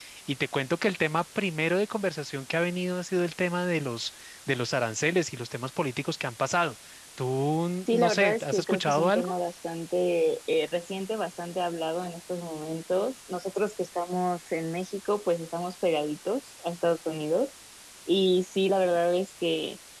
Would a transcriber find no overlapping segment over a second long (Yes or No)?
No